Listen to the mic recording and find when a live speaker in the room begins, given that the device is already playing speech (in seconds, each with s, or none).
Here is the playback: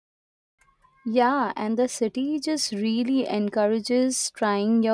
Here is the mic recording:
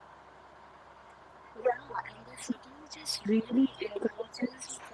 none